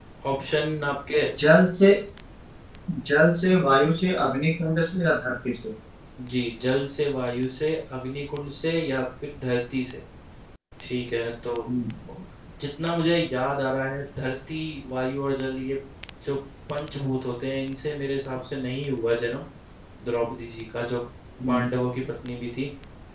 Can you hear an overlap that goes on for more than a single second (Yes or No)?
No